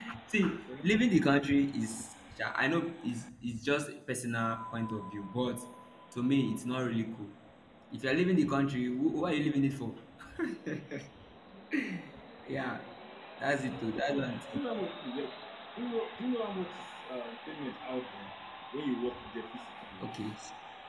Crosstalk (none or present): none